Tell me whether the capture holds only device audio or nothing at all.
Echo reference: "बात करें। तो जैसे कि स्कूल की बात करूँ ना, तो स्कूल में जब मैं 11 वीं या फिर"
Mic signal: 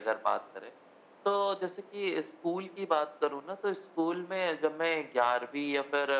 Yes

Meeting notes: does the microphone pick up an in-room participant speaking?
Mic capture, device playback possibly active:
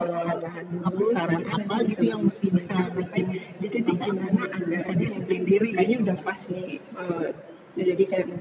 No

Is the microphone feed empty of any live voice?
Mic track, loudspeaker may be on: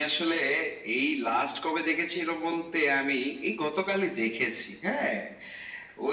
Yes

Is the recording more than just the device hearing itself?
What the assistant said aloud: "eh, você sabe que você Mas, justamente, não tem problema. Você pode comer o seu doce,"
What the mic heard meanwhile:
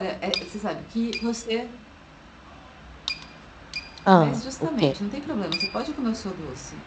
Yes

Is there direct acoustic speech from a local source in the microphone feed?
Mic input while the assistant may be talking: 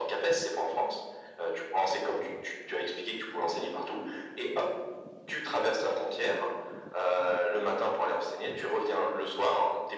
No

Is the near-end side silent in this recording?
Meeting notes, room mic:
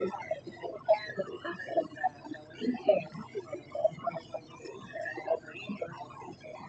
Yes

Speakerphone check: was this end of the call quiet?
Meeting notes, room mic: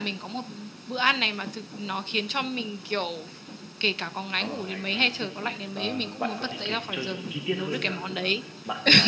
No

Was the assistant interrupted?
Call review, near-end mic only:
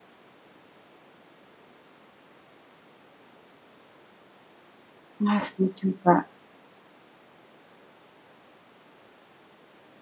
Yes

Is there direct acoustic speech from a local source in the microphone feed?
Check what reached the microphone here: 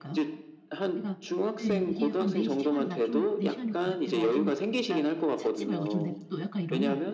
Yes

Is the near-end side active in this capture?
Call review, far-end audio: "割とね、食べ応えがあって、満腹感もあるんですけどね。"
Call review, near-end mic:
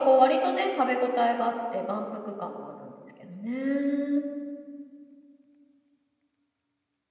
No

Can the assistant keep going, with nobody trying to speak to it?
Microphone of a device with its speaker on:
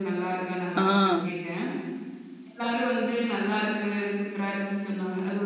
No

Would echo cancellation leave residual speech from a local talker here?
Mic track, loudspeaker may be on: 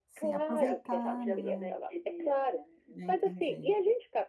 Yes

